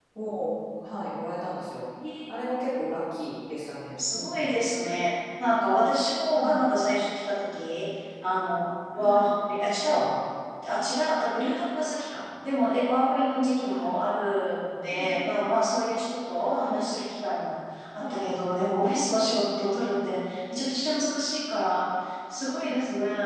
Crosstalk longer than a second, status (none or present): none